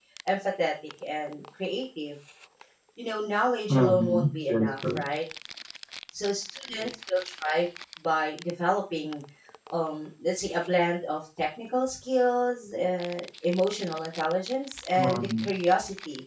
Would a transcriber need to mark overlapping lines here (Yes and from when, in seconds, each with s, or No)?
Yes, from 3.7 s